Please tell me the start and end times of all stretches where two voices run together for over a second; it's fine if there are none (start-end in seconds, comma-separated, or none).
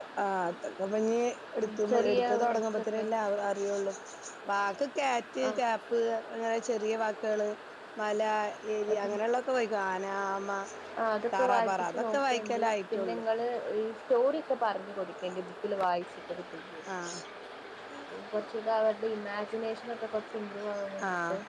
1.6-3.0, 11.3-13.2